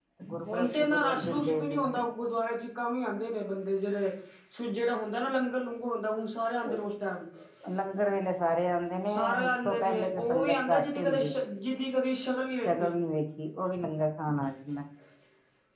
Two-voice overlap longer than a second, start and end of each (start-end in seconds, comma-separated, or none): 0.5-1.9, 9.1-11.2